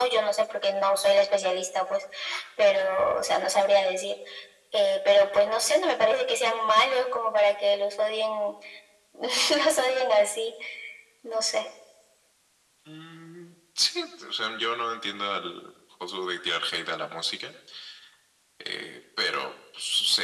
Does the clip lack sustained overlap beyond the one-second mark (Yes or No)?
Yes